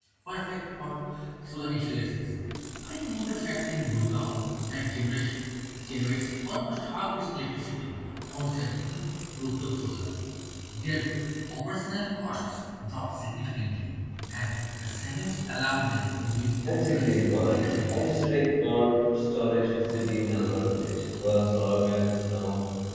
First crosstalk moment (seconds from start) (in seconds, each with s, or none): 16.7 s